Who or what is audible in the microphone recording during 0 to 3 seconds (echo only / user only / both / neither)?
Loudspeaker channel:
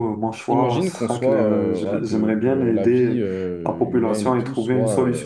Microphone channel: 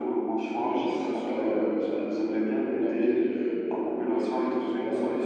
echo only